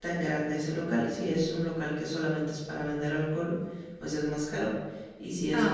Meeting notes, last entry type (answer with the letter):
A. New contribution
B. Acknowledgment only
B